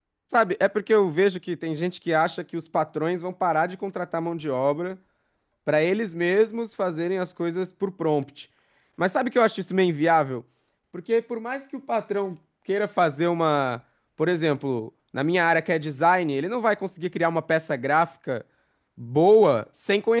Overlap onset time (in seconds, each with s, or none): none